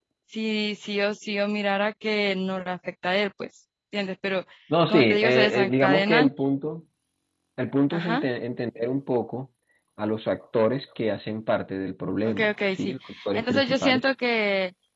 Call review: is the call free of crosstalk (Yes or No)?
No